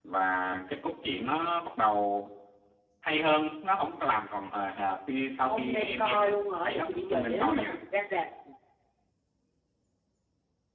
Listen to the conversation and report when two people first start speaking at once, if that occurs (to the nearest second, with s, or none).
5 s